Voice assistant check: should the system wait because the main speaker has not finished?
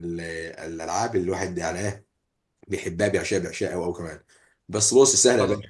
Yes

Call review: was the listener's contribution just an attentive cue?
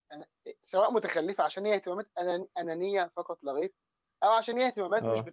Yes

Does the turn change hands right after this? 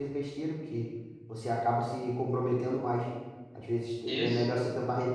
No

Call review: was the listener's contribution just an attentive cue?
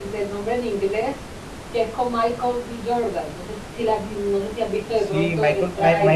No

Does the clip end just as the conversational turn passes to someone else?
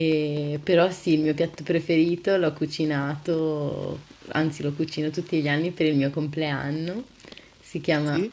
No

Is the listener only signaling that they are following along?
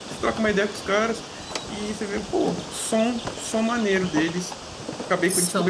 Yes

